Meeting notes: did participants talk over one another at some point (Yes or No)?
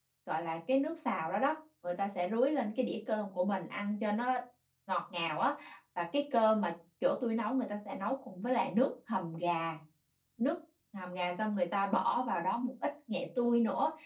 No